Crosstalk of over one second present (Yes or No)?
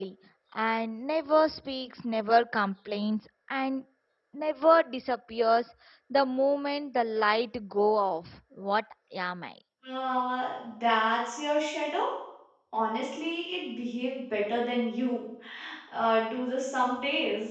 No